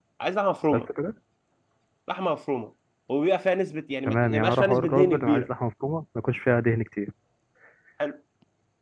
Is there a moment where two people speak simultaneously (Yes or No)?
Yes